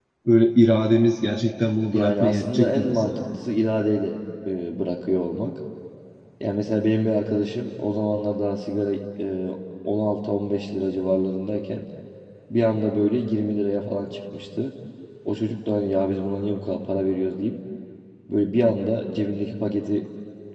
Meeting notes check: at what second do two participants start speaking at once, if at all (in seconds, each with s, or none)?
1.9 s